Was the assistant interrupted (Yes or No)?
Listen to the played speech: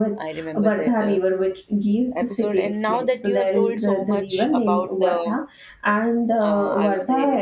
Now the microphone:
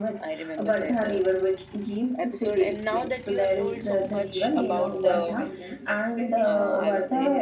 Yes